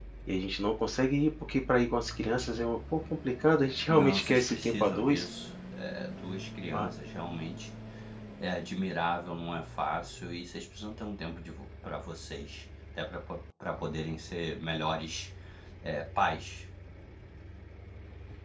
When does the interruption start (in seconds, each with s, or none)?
3.9 s